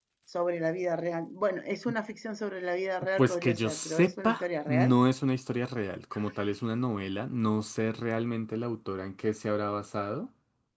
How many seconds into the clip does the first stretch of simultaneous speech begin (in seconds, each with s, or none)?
3.2 s